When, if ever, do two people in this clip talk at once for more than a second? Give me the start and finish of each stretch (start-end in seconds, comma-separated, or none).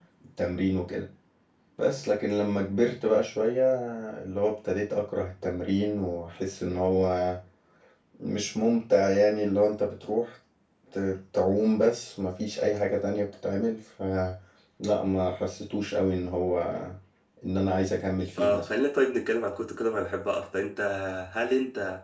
none